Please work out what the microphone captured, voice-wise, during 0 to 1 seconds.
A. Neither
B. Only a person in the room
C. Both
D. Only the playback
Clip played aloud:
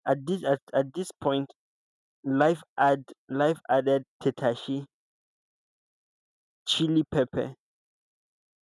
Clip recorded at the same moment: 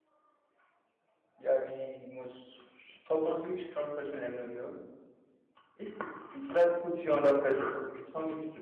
A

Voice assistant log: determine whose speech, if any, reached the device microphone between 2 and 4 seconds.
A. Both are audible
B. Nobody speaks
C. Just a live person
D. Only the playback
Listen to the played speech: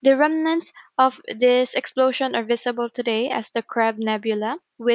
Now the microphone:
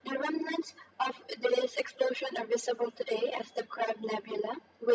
D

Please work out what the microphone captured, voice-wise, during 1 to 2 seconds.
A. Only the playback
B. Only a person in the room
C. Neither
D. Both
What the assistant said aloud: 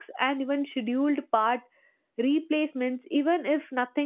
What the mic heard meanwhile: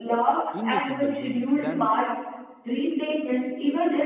D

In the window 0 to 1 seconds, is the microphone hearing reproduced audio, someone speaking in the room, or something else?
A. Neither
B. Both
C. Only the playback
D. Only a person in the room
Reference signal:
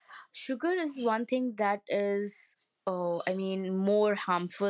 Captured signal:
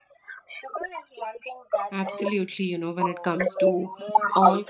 C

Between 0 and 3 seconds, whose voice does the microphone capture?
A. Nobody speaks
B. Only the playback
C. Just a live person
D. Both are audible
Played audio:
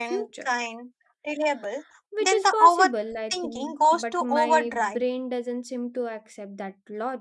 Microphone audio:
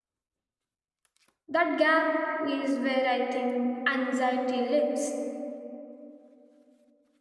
C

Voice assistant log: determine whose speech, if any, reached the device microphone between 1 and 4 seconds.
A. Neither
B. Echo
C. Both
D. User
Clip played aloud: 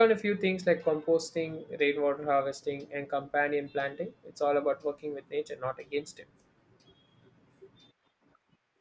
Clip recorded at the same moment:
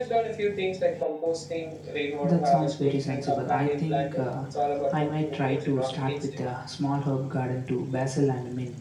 C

